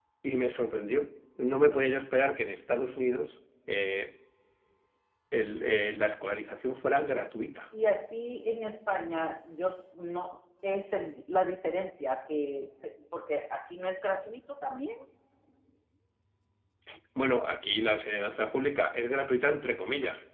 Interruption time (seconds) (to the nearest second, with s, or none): none